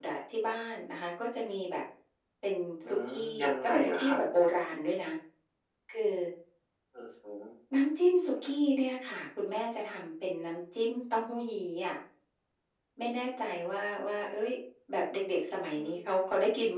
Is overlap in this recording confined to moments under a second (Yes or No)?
No